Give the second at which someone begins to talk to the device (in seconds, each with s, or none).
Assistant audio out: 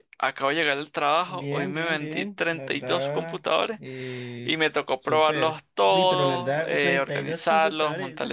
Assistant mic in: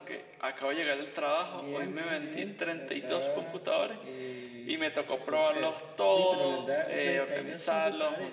none